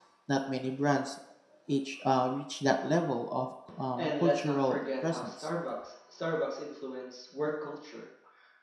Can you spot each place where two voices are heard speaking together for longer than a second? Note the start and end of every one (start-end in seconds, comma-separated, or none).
4.0-5.5